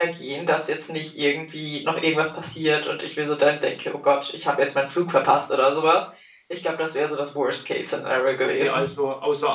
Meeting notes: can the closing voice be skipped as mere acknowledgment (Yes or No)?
No